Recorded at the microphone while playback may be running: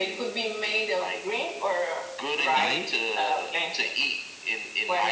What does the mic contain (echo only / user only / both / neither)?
both